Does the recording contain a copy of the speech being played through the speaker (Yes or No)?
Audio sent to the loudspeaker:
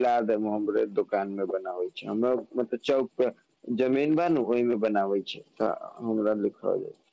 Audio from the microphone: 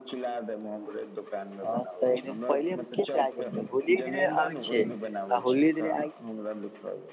Yes